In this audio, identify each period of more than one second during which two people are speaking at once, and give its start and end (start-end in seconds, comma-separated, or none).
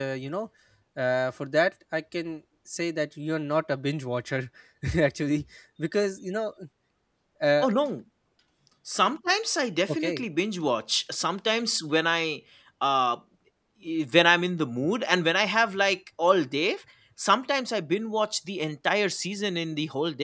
none